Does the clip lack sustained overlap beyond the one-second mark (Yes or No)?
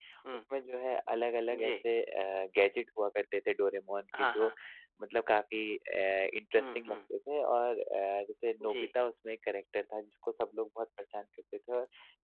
Yes